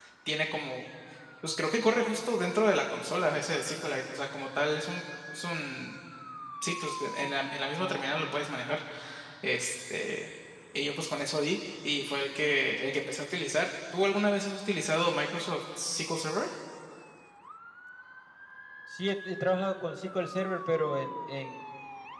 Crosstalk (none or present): none